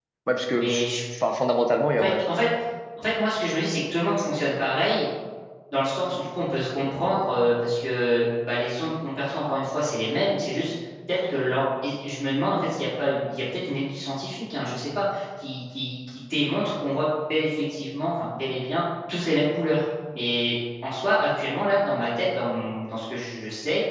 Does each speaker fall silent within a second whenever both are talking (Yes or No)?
Yes